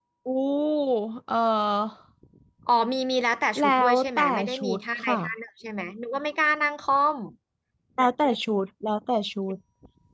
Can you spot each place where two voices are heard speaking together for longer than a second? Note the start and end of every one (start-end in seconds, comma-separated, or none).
3.6-5.1